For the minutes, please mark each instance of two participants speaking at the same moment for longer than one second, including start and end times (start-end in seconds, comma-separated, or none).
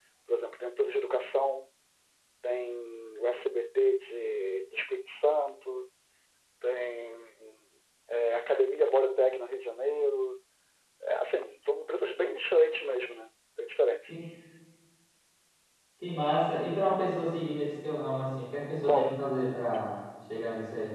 none